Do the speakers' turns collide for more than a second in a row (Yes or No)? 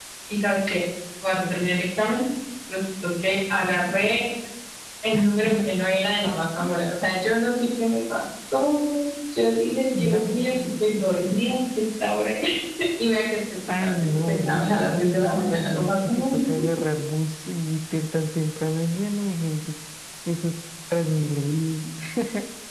Yes